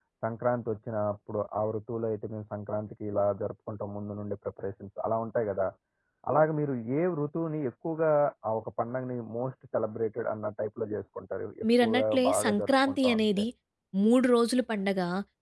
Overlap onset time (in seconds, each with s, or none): 11.6 s